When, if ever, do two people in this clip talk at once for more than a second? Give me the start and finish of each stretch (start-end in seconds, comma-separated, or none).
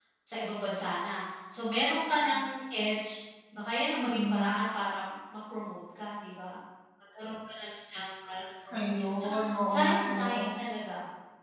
8.7-10.3